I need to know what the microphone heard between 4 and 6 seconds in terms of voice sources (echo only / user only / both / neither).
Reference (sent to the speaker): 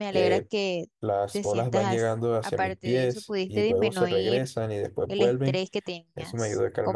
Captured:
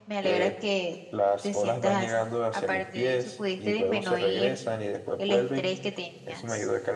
echo only